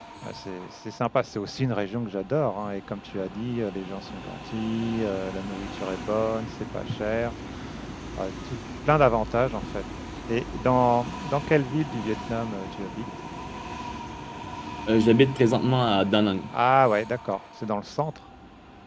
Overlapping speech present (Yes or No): No